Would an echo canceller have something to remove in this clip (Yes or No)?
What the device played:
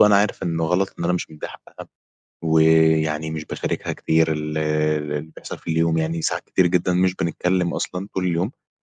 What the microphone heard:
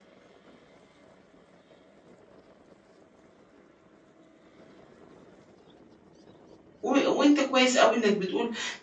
No